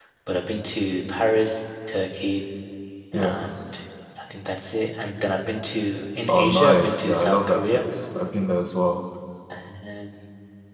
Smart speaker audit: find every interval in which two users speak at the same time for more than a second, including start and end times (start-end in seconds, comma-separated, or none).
6.3-7.8